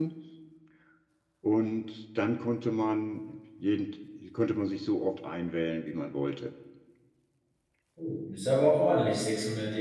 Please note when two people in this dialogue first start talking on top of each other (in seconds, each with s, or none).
none